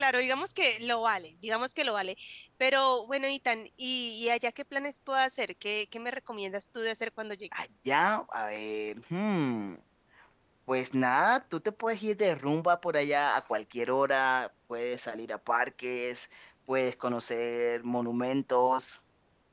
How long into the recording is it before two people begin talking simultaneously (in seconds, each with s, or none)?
none